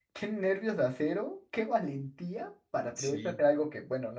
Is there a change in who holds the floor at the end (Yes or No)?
No